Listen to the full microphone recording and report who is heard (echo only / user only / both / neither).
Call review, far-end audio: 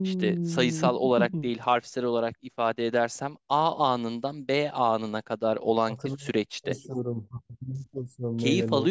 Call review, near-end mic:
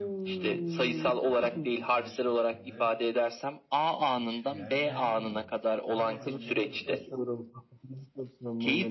both